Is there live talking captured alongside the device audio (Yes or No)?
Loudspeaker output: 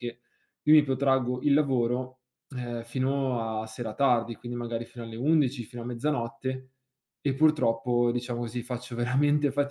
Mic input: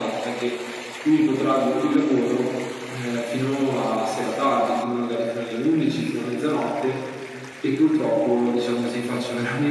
No